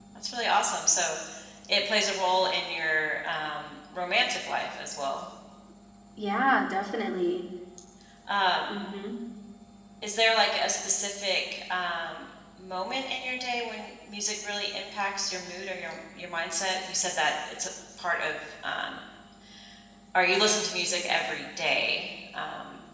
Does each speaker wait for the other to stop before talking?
Yes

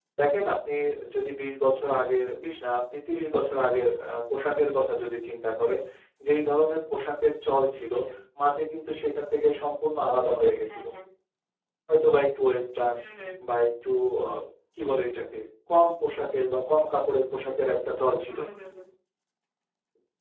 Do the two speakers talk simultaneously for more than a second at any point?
No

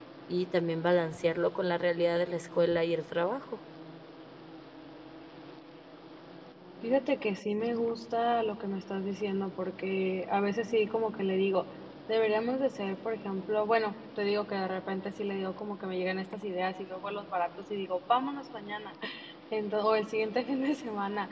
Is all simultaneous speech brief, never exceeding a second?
Yes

